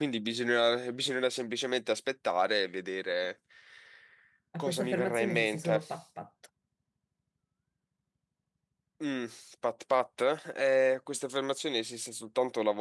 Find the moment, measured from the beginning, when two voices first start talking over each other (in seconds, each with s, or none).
4.6 s